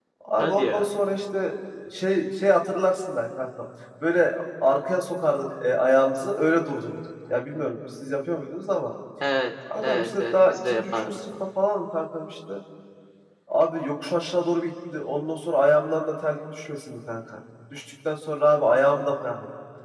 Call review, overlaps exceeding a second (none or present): present